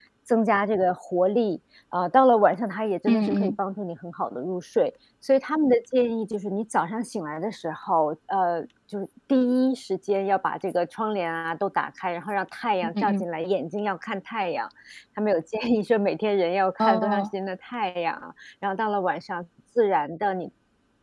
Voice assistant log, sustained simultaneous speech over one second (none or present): none